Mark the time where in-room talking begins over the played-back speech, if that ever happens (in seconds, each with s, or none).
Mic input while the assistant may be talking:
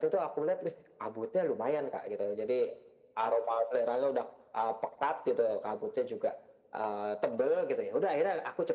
none